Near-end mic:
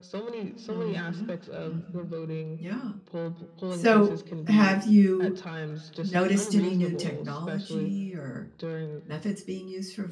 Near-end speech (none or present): present